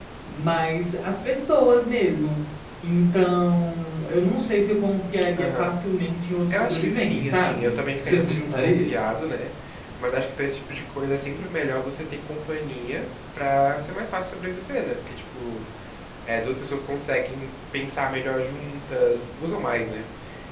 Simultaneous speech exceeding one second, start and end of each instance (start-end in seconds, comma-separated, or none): 6.5-8.9